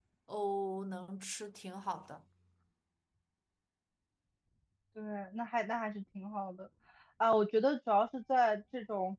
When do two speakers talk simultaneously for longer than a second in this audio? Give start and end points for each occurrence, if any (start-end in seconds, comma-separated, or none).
none